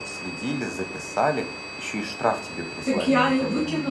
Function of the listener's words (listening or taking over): taking over